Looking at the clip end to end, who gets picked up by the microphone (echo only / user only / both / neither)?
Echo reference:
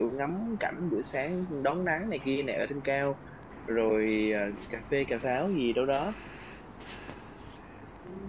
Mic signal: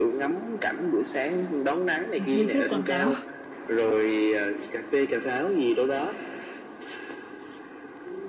both